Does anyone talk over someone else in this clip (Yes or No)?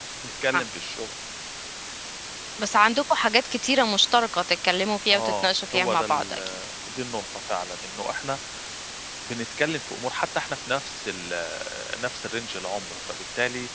Yes